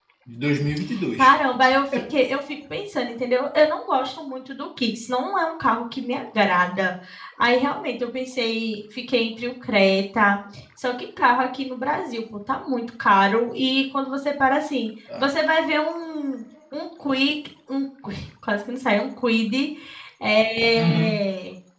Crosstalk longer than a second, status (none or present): none